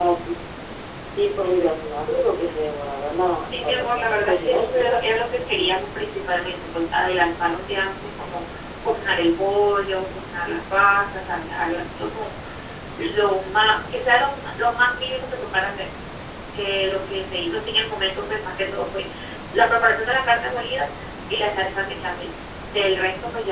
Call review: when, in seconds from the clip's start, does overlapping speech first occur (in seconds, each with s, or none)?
3.5 s